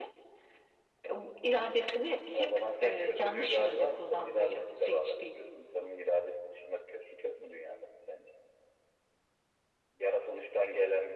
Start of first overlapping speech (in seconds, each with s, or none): 2.3 s